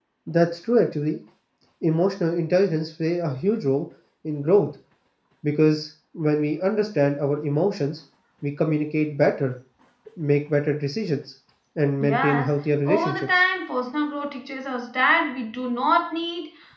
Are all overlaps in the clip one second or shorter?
No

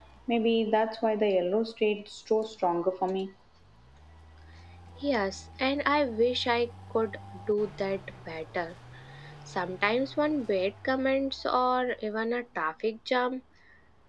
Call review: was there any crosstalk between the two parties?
No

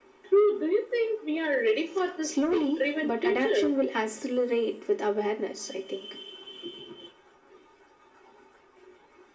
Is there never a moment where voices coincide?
No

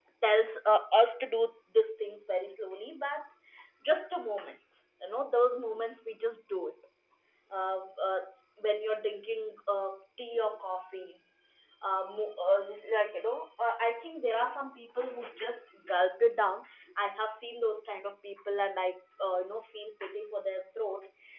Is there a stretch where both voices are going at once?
No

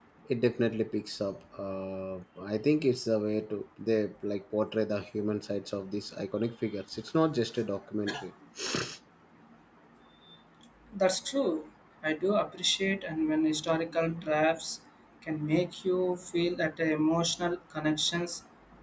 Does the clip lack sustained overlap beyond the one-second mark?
Yes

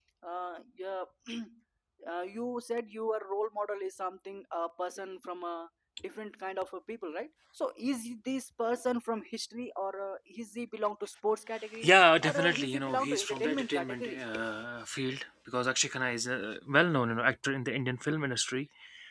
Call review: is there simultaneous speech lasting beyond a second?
Yes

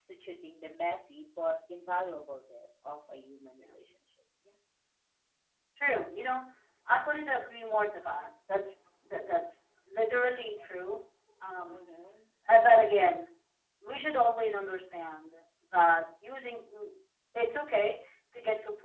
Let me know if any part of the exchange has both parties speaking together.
No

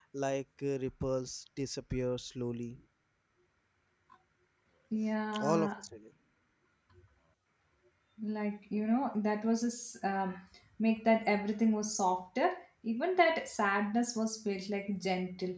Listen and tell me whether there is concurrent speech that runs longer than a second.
No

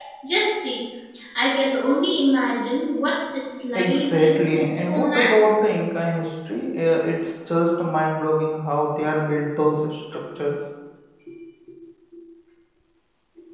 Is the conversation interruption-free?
No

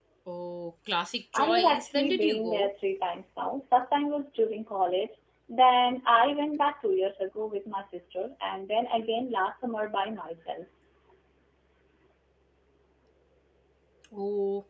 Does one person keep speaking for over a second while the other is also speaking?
Yes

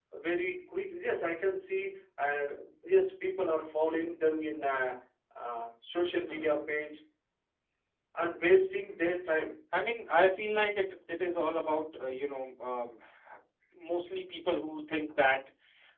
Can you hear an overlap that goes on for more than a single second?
No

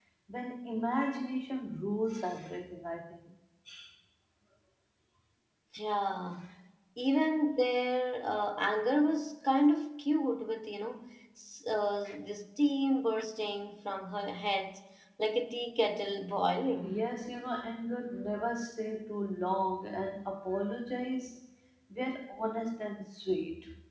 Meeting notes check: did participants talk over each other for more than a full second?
No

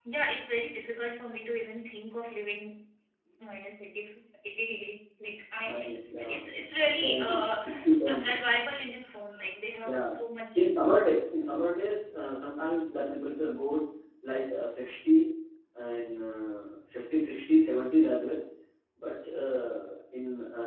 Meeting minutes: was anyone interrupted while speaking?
Yes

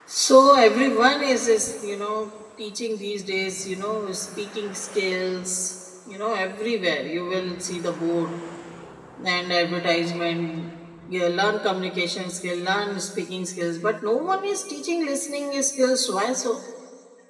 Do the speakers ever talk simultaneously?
No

